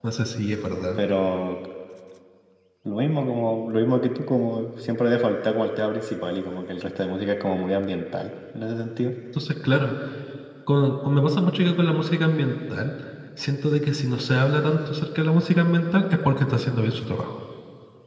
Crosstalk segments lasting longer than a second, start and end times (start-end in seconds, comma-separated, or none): none